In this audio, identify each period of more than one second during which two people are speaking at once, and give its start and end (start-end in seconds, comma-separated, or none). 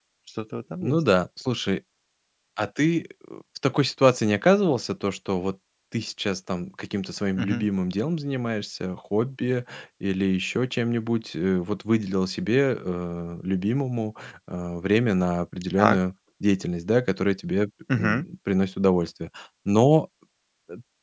none